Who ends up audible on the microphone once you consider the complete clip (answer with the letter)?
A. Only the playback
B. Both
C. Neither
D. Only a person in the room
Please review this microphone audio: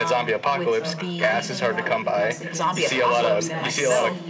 B